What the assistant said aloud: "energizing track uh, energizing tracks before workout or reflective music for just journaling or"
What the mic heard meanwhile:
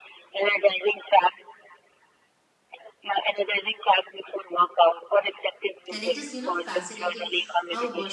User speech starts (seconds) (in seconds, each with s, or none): 5.9 s